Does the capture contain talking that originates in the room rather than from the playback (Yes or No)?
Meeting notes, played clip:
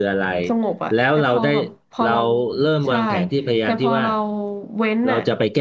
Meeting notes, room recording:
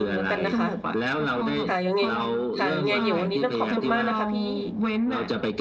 Yes